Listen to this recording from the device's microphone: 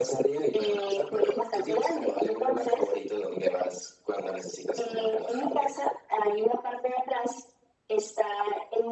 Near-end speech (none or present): none